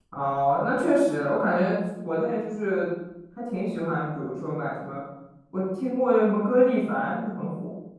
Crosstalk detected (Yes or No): No